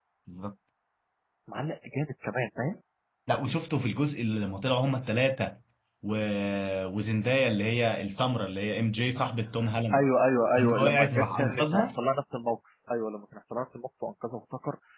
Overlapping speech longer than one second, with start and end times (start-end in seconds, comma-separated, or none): 10.6-11.9